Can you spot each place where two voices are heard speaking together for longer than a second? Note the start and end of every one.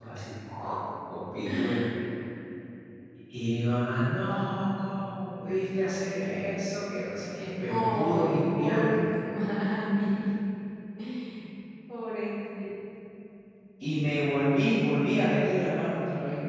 7.7-9.0

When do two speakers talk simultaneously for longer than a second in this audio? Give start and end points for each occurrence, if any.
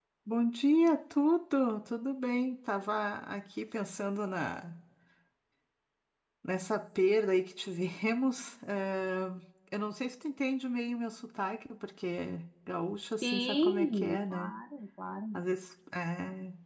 13.2-14.5

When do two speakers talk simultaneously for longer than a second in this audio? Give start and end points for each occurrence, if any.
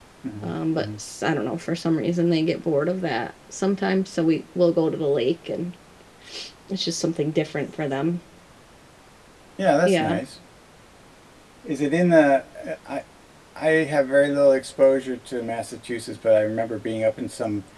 none

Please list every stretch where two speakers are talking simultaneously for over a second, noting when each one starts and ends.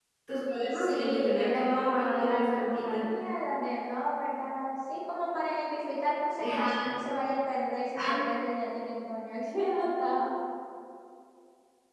0.7-3.0

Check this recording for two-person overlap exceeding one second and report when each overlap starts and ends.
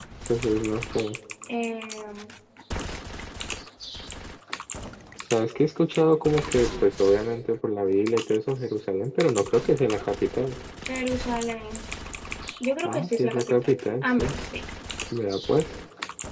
12.8-14.3

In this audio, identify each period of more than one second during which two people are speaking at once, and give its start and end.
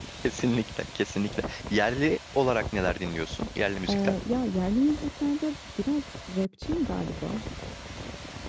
none

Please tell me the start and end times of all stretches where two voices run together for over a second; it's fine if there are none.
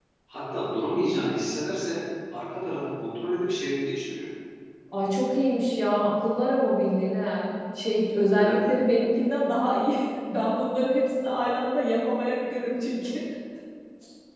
none

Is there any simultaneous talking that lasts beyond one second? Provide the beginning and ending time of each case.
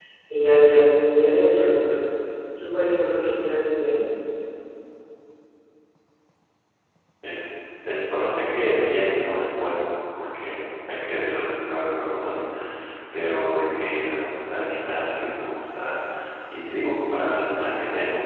none

